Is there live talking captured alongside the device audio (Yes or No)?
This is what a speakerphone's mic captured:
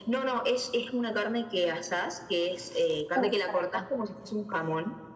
Yes